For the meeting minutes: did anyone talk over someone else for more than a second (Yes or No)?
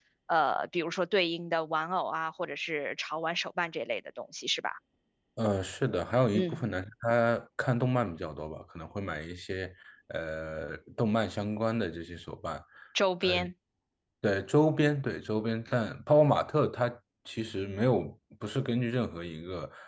No